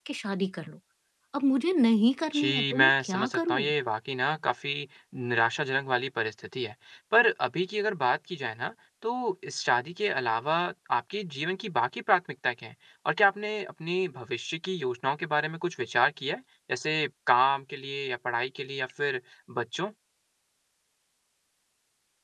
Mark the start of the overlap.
2.3 s

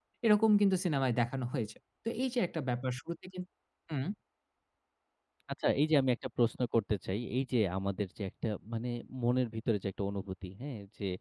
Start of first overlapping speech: none

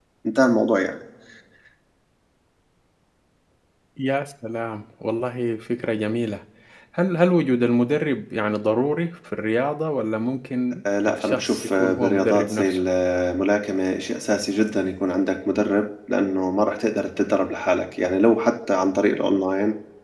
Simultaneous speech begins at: 10.8 s

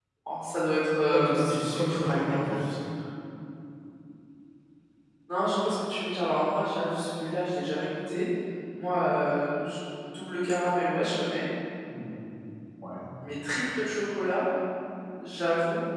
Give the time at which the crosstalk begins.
1.1 s

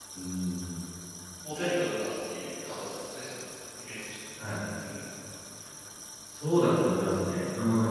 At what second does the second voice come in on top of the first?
none

